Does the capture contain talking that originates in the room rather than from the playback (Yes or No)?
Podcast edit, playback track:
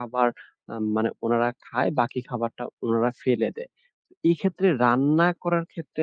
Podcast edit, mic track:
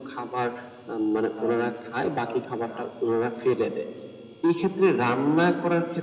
Yes